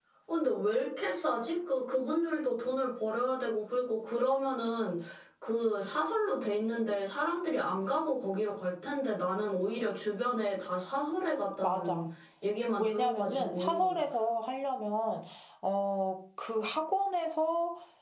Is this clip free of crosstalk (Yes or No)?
No